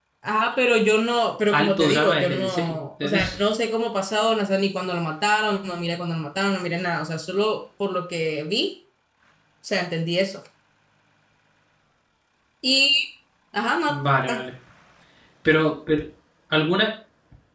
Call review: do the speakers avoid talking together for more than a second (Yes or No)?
No